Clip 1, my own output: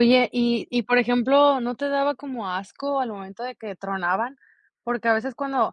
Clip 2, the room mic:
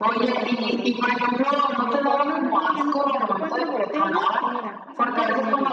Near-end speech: present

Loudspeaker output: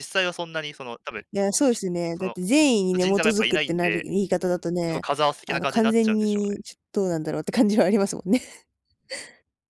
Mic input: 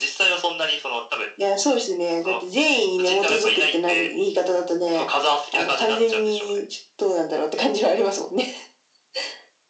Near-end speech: none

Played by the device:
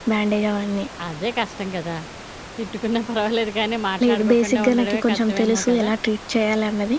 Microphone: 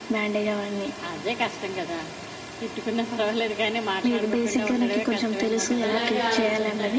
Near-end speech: present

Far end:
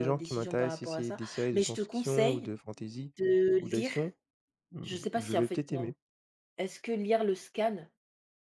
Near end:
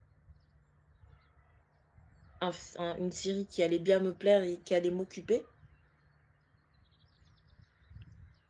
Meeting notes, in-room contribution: present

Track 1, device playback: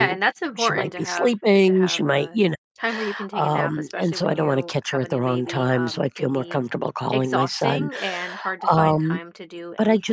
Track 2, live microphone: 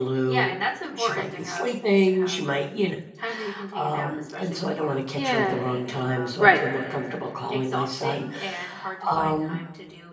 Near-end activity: present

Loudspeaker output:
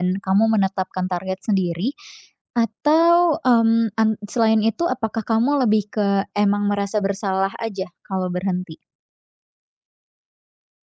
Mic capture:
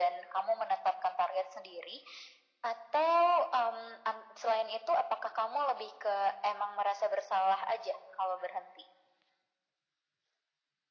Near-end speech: none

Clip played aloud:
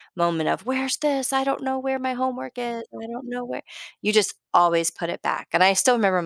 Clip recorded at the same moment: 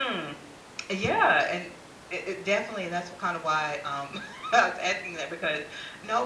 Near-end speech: present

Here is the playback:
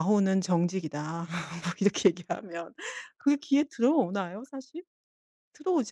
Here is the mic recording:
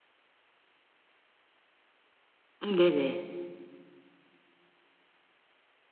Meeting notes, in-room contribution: present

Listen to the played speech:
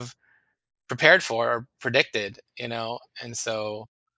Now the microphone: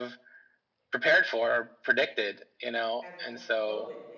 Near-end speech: present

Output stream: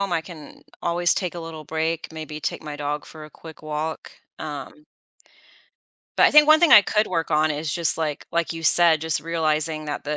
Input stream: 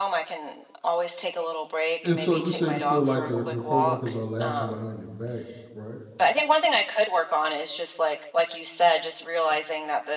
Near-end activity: present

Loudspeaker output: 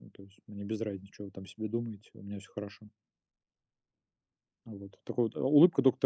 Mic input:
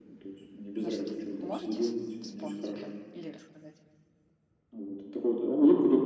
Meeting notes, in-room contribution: present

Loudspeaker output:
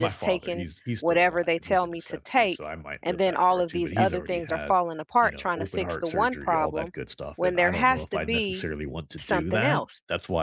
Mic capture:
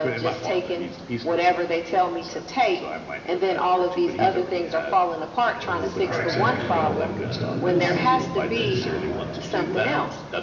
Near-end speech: present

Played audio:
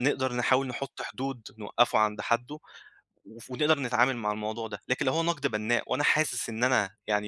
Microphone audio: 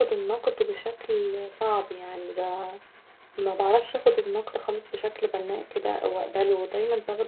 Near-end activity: present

